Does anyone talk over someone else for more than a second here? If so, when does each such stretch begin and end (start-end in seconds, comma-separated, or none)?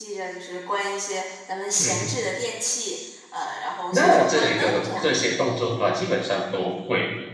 3.9-5.2